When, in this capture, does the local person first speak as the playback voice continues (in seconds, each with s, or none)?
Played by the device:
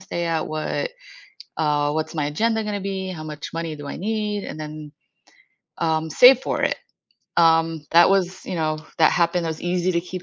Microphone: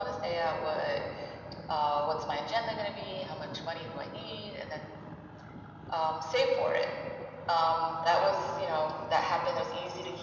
none